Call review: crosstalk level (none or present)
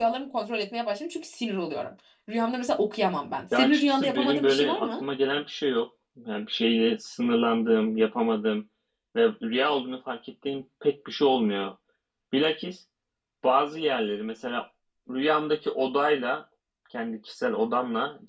present